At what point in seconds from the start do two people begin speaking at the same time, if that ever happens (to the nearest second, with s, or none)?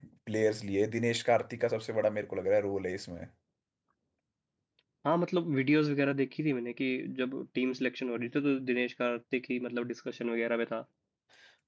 none